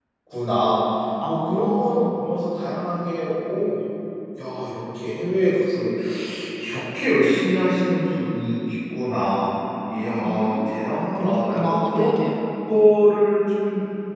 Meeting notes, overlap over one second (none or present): present